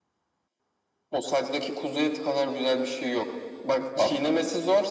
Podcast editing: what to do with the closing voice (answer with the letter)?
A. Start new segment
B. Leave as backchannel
B